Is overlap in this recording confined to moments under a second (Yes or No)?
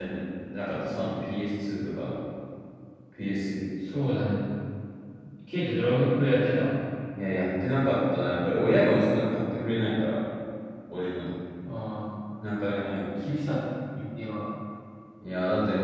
Yes